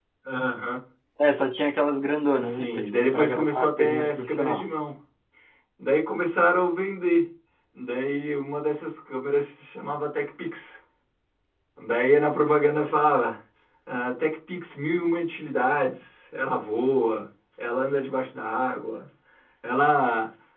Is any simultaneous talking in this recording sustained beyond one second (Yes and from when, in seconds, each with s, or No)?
Yes, from 2.4 s